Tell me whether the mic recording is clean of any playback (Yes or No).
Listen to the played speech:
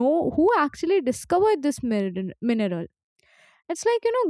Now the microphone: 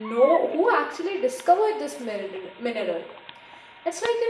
No